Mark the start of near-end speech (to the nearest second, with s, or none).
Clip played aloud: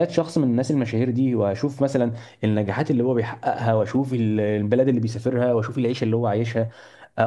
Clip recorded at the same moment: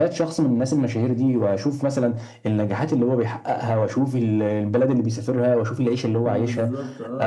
6 s